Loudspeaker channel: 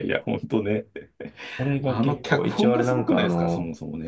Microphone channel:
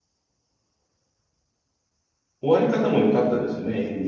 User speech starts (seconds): 2.4 s

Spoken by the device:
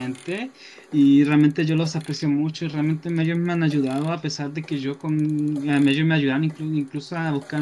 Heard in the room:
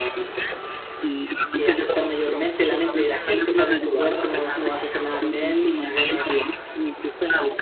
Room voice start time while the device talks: 1.5 s

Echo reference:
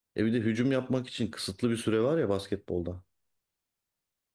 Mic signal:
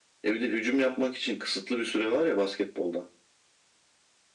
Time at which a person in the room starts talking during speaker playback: none

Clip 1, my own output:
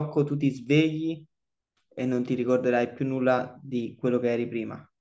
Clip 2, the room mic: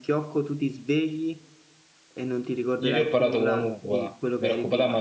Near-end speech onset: 2.8 s

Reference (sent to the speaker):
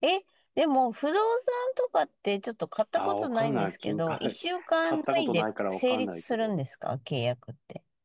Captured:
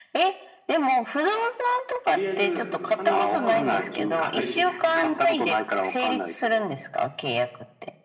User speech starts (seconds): 2.0 s

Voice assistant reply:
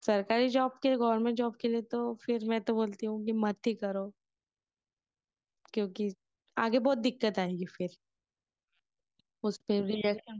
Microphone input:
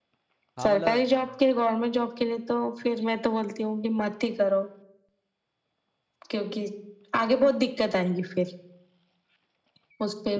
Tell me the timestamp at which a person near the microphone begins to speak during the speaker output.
0.6 s

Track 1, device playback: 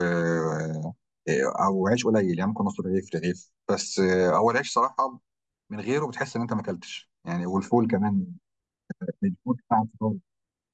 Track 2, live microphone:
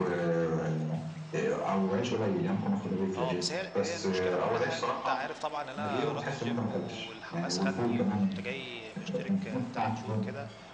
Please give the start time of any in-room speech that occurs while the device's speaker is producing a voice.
3.2 s

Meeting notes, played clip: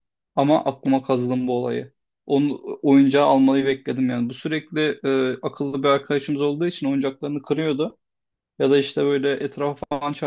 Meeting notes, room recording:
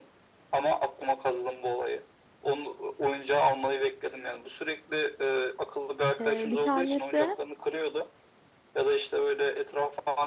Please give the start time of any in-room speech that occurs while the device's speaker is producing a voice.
6.2 s

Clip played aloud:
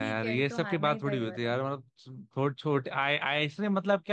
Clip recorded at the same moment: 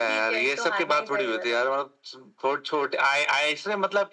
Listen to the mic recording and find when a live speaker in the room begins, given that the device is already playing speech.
none

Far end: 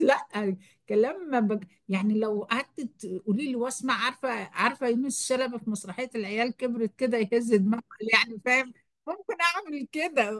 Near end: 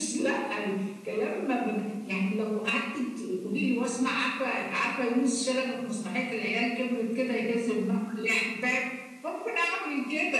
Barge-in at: none

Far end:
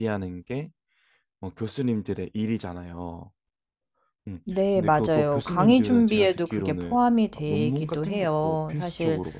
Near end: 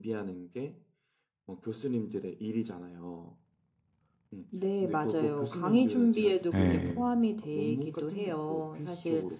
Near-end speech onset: 6.5 s

